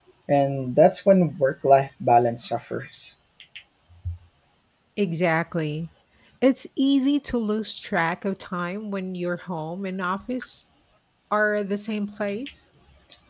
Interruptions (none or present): none